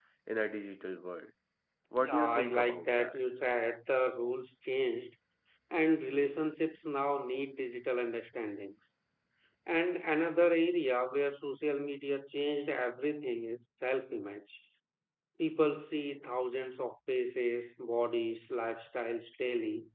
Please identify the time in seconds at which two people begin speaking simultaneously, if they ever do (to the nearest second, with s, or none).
2 s